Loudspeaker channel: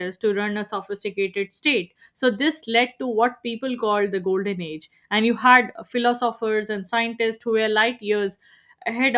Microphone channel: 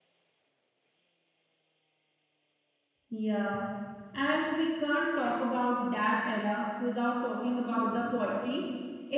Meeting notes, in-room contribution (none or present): present